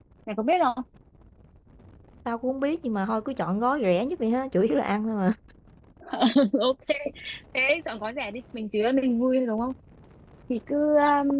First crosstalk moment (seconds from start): none

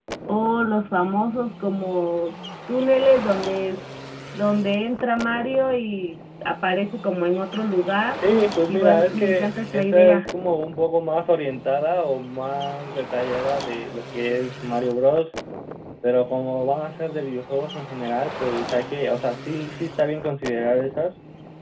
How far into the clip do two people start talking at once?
8.7 s

